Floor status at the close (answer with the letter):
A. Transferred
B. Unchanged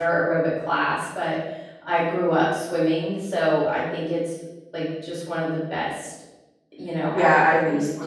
A